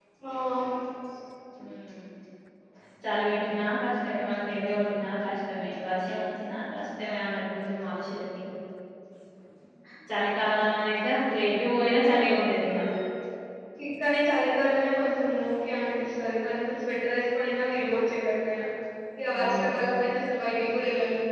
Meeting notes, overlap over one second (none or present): none